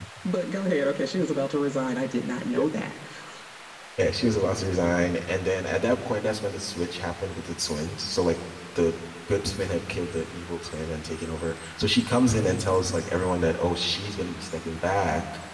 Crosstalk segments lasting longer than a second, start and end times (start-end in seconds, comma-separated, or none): none